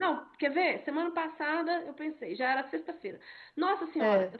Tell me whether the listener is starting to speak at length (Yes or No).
No